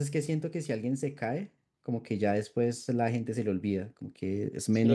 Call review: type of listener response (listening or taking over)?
taking over